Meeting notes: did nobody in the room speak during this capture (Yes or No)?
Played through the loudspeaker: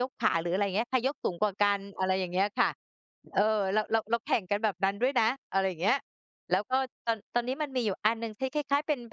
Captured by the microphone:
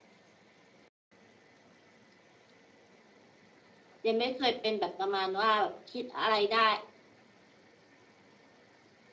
No